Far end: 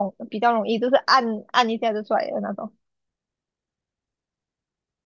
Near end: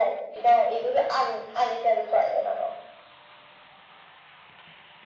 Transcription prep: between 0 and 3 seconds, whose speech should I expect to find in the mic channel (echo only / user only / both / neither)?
echo only